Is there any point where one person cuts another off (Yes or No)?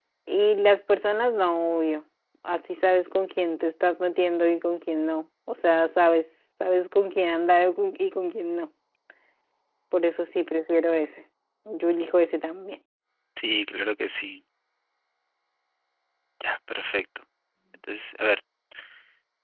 No